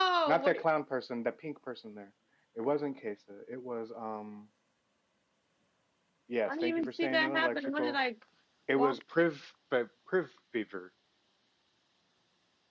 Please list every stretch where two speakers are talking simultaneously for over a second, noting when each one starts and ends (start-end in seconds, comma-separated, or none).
6.5-7.9